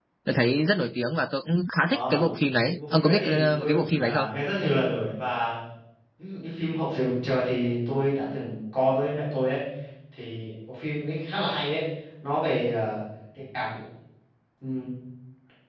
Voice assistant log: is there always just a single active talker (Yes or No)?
No